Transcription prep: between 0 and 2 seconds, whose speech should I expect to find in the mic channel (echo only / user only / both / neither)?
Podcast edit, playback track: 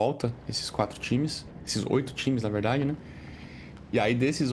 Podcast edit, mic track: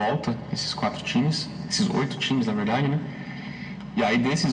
echo only